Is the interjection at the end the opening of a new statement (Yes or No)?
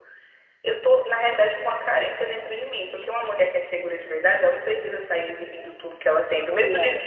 No